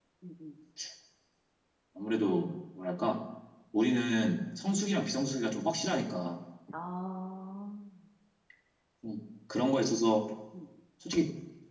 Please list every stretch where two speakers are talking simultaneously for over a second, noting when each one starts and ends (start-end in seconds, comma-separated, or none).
none